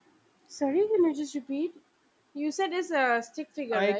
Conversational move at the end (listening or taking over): taking over